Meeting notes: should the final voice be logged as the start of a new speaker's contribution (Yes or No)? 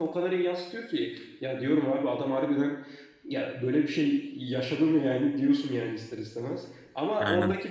No